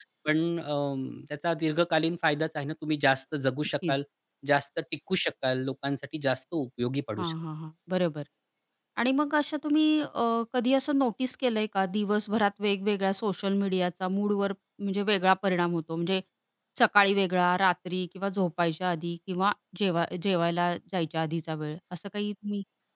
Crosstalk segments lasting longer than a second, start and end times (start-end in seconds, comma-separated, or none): none